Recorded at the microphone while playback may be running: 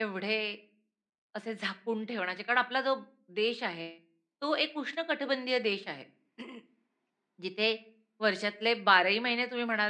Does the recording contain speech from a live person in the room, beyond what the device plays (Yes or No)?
Yes